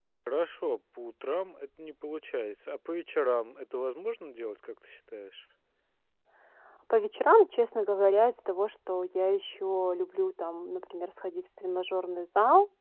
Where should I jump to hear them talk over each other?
none

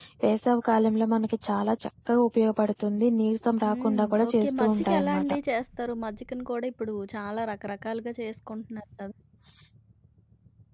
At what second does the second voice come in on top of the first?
4 s

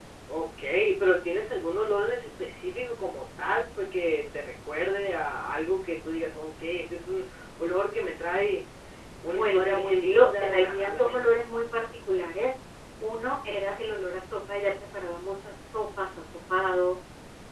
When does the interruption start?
9 s

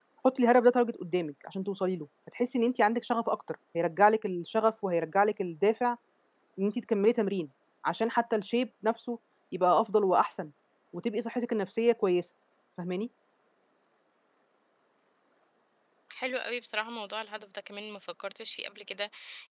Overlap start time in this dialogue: none

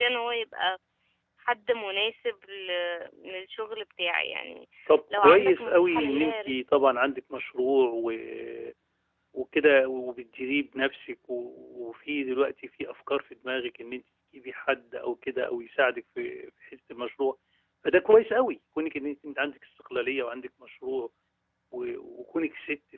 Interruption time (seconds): 5 s

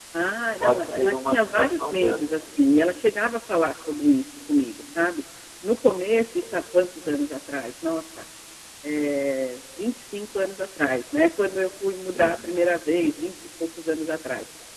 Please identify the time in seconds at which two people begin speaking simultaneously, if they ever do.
1 s

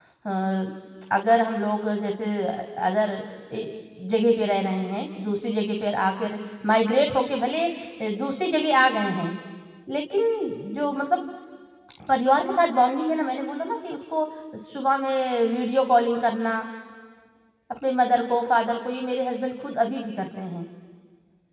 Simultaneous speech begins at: none

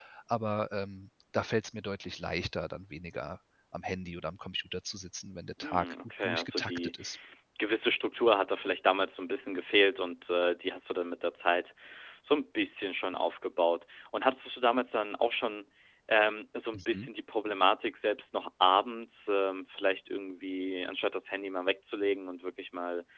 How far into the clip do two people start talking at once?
6 s

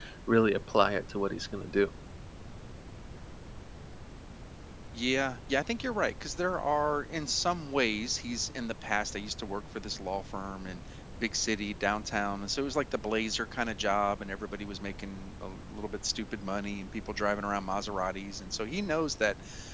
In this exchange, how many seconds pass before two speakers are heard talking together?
none

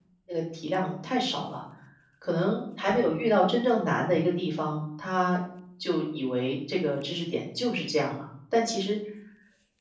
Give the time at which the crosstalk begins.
none

